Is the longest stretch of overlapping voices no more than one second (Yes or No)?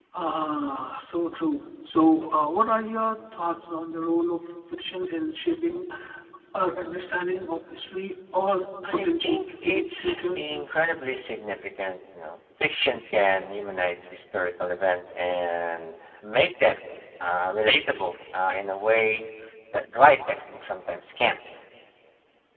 No